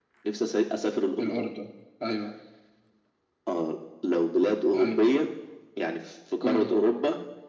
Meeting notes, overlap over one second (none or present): none